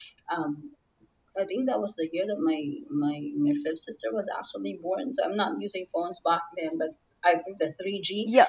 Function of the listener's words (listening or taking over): taking over